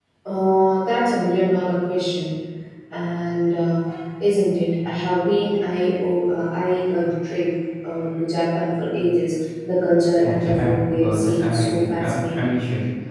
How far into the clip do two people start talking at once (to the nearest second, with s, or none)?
10 s